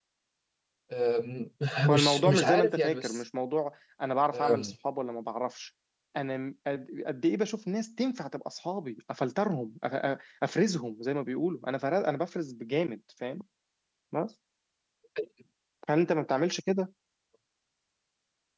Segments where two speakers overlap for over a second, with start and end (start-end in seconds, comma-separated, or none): 1.9-3.2